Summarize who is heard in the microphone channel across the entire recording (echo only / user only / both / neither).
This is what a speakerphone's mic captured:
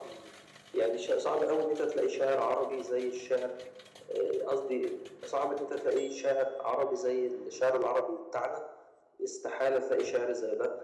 echo only